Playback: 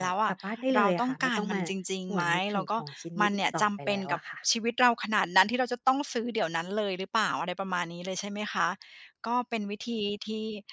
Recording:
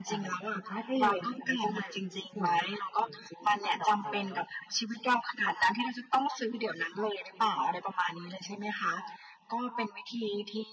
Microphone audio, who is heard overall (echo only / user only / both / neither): echo only